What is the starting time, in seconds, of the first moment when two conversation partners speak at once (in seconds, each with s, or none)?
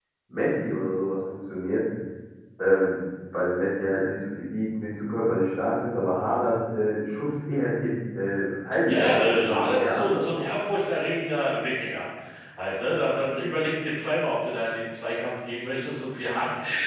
8.9 s